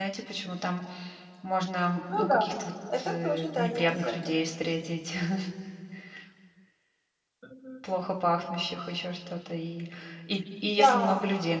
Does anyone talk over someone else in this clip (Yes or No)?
Yes